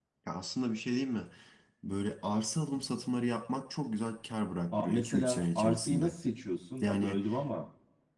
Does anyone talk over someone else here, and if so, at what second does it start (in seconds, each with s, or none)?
4.7 s